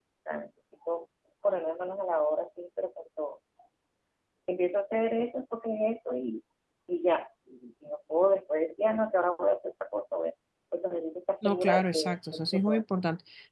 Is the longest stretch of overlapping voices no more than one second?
No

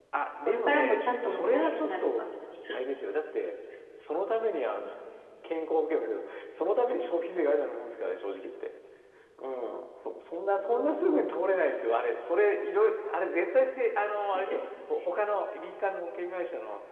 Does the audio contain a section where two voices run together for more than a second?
Yes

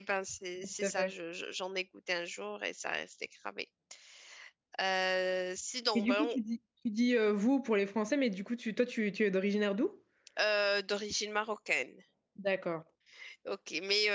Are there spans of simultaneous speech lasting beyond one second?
No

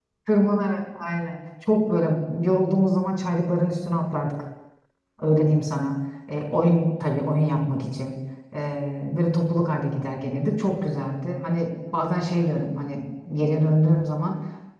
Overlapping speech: No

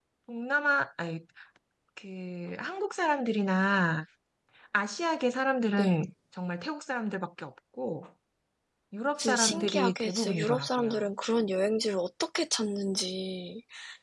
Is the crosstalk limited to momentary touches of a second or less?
No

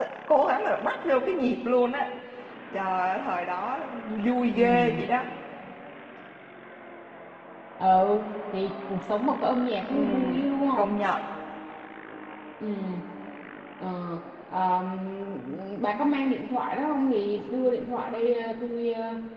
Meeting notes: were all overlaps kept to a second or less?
Yes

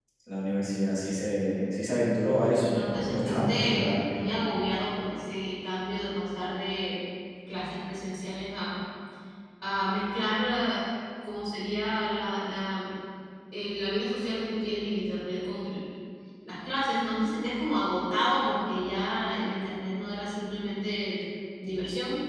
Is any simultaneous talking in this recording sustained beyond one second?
Yes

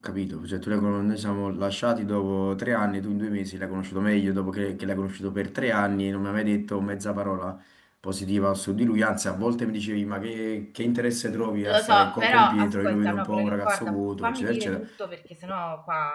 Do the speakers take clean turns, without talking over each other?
No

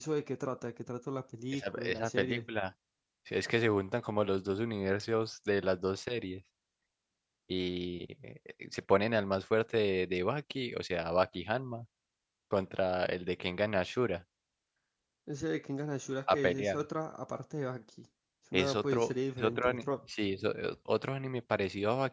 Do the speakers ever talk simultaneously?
Yes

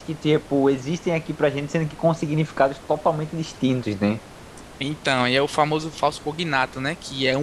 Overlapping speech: No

